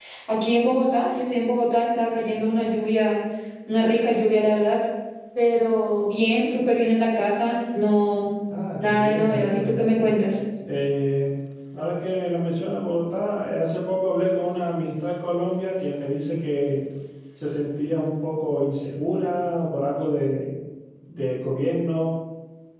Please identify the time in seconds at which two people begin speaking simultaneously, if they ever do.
8.8 s

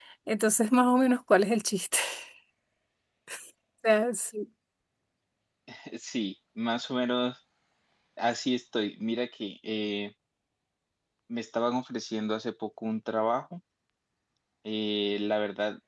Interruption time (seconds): none

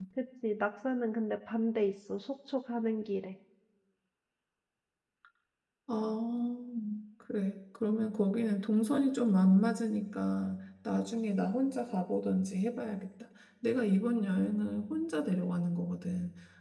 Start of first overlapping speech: none

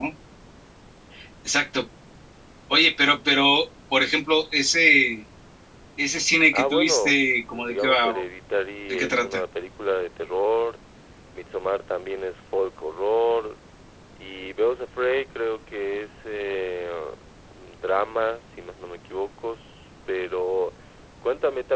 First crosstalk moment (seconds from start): 6.5 s

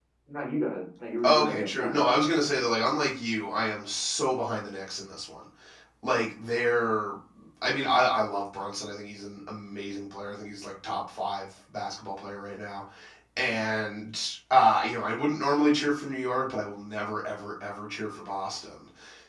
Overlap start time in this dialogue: 1.2 s

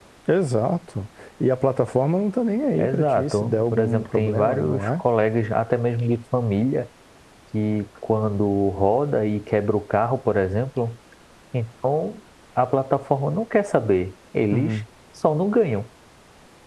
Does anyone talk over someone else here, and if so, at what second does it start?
2.7 s

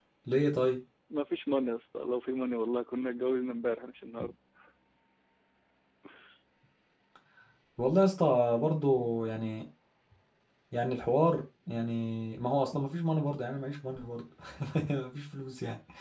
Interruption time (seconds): none

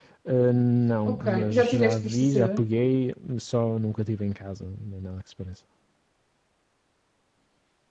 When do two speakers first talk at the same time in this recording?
1.1 s

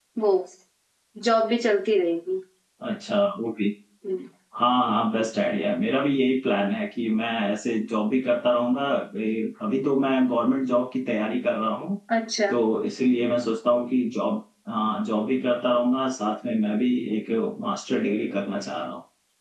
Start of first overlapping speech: none

